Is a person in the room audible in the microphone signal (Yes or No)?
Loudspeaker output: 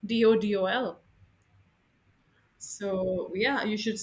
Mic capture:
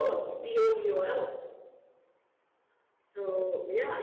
No